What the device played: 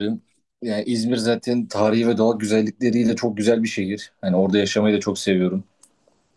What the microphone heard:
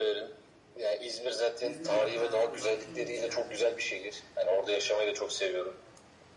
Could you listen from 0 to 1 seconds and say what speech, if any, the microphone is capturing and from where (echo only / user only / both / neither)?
echo only